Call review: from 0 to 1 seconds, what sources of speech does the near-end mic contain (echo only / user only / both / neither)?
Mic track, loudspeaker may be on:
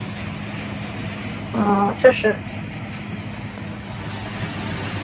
neither